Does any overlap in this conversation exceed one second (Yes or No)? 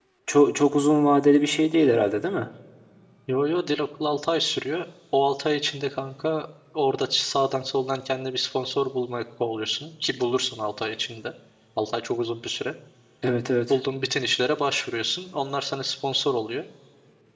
No